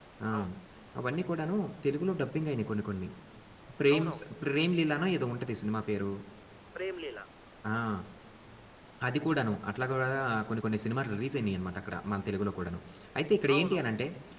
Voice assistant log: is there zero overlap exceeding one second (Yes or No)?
Yes